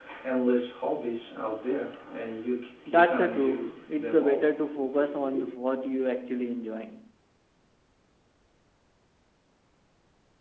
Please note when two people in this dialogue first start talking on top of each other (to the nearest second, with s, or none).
3 s